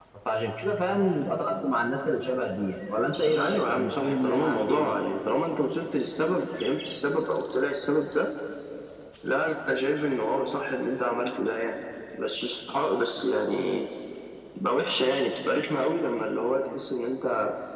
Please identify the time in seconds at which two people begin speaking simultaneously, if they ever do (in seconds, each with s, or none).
3.3 s